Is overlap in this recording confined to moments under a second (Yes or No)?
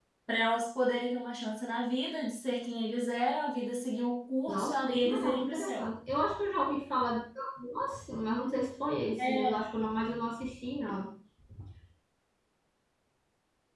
No